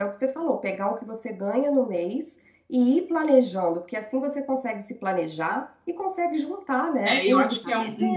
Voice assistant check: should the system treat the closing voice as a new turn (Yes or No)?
Yes